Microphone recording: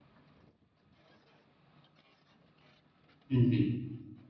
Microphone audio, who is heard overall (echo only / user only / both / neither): user only